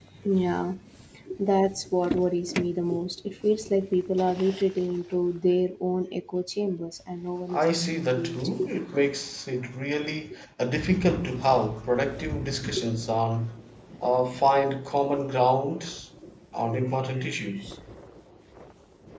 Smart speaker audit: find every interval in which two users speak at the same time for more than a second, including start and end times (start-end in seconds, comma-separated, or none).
7.5-8.7